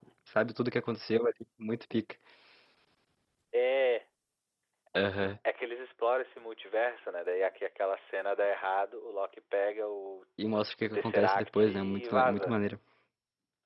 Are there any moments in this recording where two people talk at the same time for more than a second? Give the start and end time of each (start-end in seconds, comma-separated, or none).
10.8-12.5